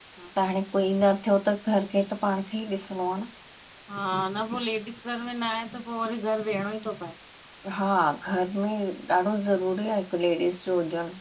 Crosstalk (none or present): none